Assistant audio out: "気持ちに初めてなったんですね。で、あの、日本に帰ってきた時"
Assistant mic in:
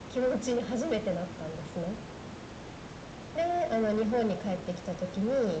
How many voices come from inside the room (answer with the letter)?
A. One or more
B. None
B